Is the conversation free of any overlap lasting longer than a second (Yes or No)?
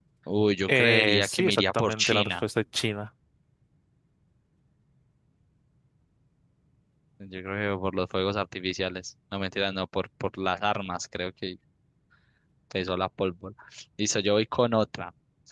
No